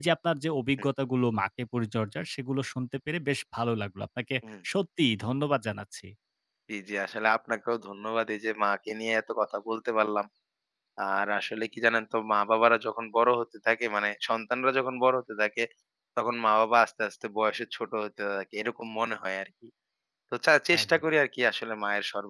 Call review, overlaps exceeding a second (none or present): none